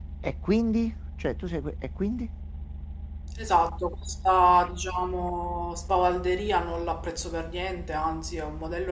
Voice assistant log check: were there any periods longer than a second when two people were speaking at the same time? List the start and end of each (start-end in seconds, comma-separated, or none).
none